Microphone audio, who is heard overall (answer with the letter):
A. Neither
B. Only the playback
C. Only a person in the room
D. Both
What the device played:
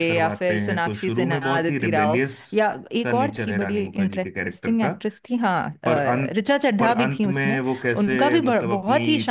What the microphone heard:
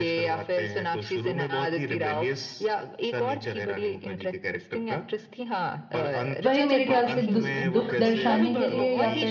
D